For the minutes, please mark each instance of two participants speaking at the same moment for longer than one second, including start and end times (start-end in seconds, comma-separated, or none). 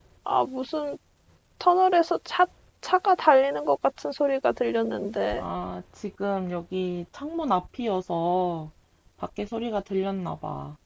none